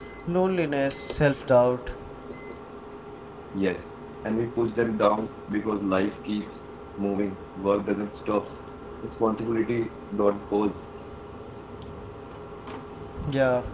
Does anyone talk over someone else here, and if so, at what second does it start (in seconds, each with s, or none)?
none